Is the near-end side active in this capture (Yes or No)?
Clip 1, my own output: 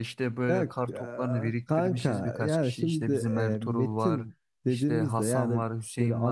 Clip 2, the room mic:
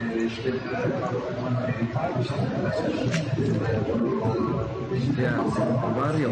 Yes